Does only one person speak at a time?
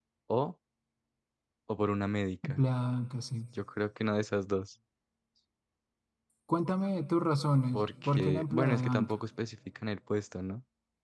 No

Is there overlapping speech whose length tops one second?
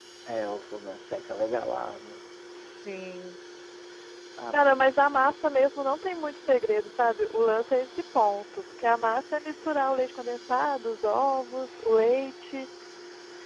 No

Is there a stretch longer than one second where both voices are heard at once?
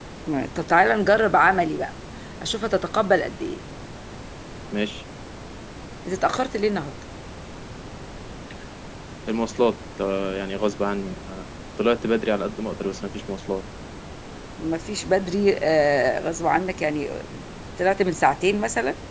No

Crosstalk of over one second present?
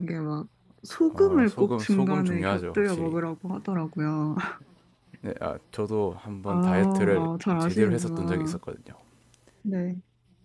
Yes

